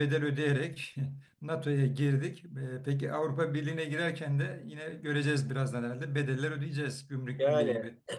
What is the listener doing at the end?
taking over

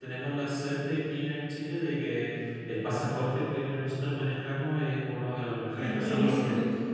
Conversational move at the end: listening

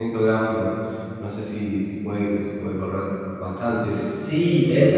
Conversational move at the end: taking over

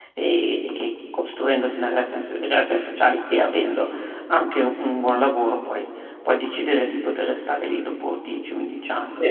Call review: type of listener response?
taking over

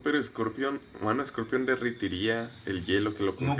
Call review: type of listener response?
taking over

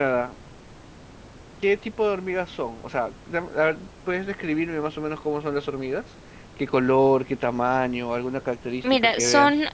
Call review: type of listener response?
taking over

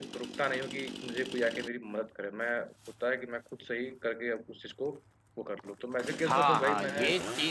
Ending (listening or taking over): taking over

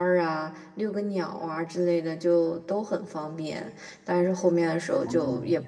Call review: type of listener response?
listening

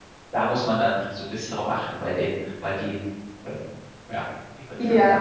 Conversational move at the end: taking over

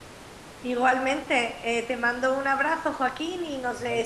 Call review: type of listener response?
listening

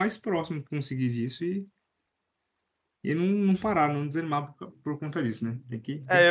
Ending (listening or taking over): taking over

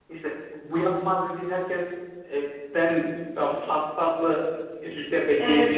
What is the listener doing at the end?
taking over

